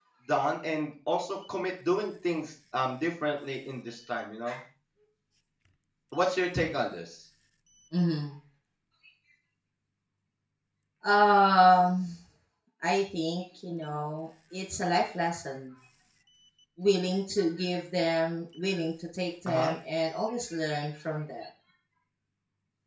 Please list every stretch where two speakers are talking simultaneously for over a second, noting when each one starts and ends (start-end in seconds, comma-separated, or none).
none